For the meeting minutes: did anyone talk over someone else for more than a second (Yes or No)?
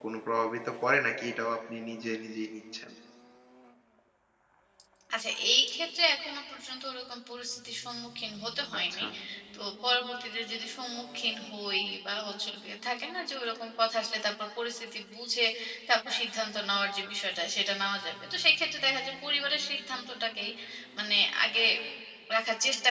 No